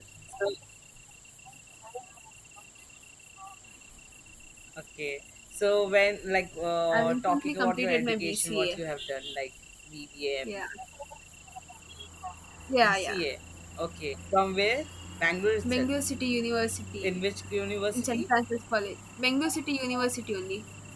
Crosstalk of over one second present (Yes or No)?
Yes